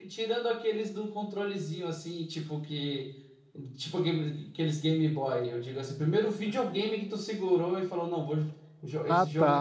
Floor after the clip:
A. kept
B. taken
B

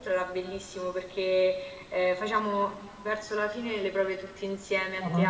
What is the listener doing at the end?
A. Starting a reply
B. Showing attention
B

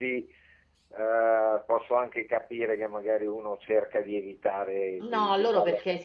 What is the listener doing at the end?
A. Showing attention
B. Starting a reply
B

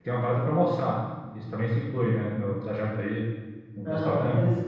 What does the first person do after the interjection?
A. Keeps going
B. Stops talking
B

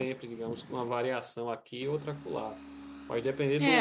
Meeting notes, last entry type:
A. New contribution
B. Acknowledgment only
A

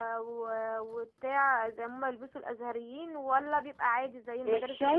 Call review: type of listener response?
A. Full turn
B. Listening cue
A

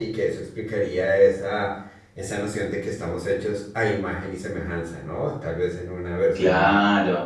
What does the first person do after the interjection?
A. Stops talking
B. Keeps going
A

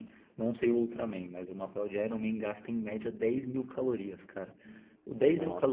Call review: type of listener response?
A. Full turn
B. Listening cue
B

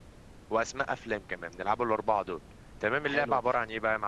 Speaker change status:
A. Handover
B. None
B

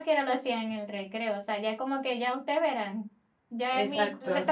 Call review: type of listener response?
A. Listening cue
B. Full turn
A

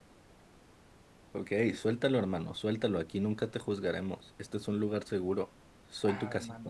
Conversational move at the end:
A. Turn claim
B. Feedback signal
A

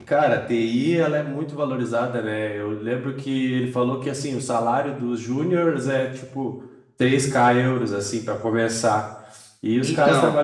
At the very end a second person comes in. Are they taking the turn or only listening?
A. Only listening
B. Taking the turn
A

